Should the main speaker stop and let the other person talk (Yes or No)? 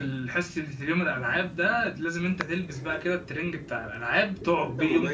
Yes